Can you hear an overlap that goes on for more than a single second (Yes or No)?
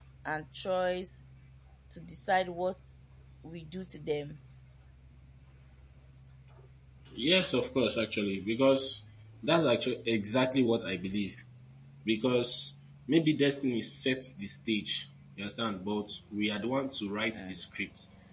No